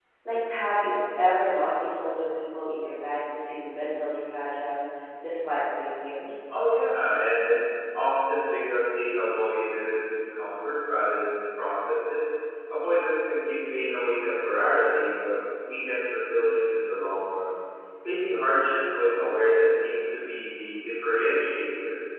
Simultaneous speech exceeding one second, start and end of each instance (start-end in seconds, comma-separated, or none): none